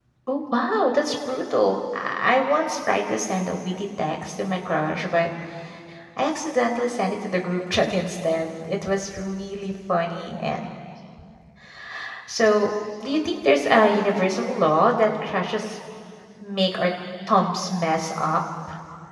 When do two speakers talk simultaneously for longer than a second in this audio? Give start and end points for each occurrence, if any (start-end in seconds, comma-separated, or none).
none